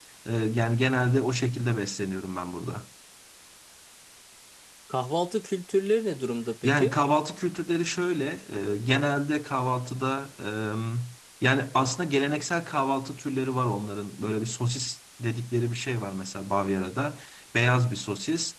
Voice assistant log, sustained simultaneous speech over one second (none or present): none